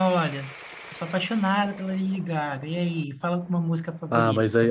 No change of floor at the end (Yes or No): No